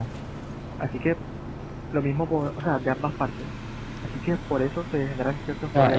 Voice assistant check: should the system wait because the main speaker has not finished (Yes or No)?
No